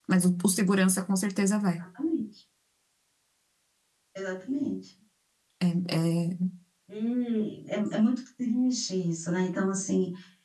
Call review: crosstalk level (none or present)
none